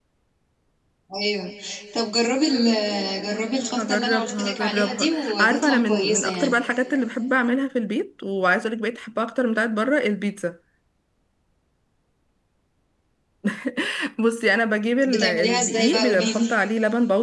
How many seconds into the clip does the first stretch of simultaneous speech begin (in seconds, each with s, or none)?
3.7 s